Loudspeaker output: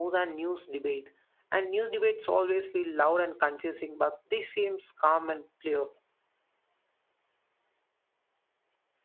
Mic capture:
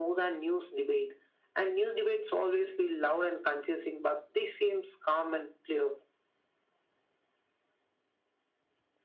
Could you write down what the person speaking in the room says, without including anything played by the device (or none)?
none